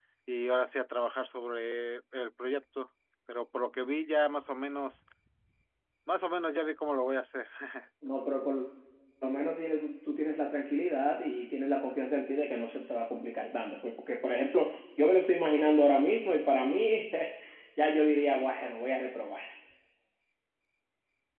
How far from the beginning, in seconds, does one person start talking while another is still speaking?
none

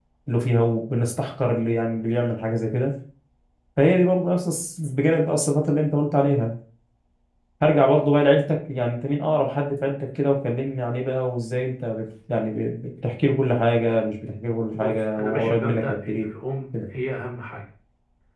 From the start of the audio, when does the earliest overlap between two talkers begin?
15 s

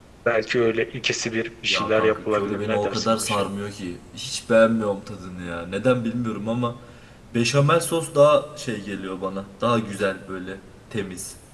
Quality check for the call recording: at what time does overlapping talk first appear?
2 s

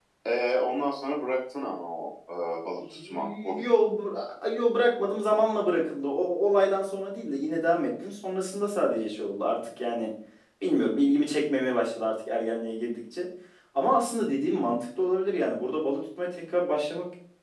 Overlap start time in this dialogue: 3 s

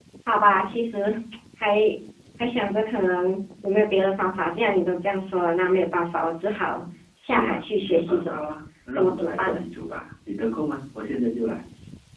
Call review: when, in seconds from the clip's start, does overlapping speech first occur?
7 s

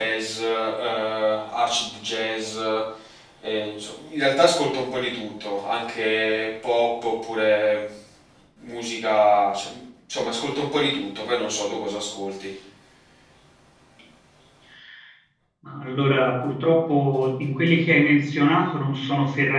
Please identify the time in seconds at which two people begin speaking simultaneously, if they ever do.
none

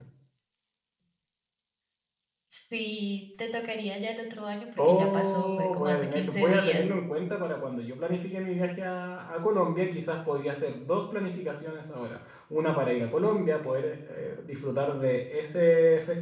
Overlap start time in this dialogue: 5 s

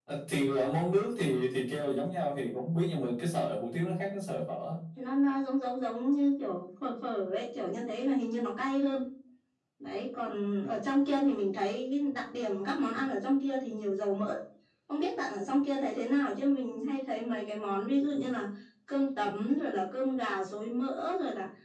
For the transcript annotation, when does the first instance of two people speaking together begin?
none

